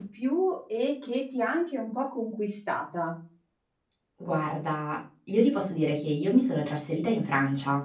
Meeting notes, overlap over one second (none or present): none